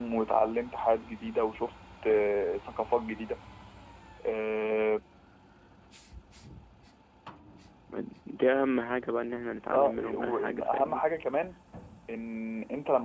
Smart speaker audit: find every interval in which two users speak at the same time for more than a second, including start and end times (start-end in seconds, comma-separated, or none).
9.7-11.0